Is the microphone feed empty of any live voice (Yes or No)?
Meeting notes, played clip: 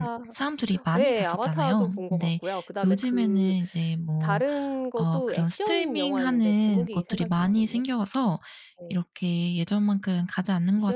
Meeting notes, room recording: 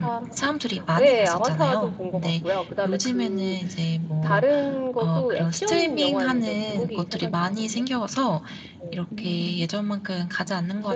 Yes